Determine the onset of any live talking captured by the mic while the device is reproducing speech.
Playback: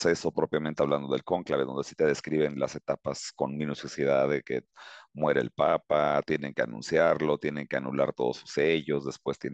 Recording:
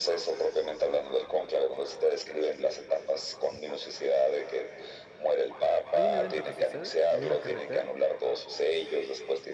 5.9 s

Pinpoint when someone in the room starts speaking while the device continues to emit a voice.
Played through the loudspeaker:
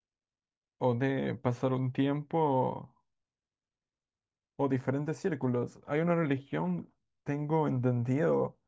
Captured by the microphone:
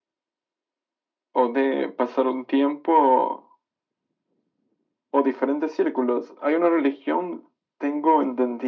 none

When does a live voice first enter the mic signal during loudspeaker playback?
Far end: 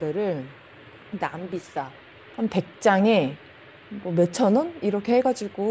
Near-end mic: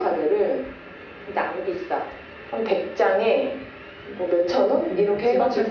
4.8 s

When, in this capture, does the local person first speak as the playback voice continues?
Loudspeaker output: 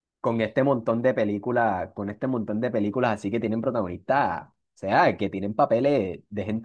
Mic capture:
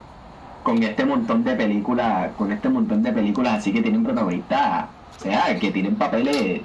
none

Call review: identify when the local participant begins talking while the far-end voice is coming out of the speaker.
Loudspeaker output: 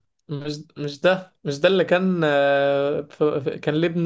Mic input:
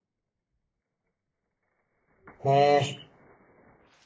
2.4 s

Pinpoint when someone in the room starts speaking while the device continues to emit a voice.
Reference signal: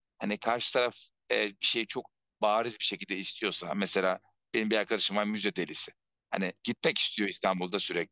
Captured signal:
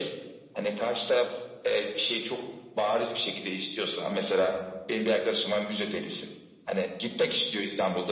none

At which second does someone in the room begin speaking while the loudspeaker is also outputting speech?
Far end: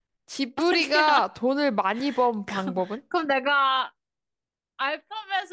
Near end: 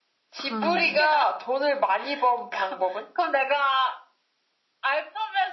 0.3 s

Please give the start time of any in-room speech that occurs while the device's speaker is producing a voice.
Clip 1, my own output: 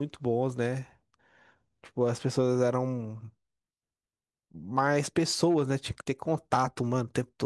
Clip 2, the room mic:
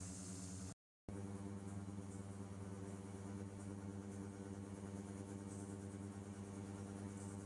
none

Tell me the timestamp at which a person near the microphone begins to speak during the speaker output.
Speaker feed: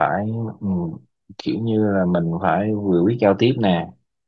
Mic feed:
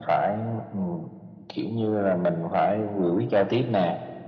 none

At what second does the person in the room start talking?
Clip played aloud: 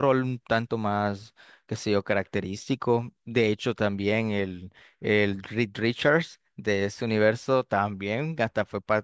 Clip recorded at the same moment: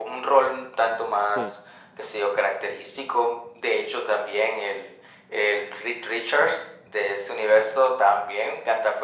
1.3 s

